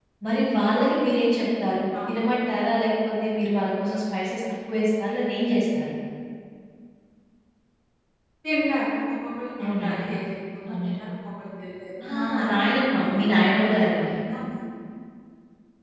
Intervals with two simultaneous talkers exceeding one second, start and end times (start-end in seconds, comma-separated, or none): 12.0-13.9